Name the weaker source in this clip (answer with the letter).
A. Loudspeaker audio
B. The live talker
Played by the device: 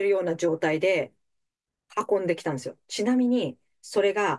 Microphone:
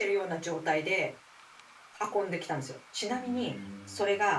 B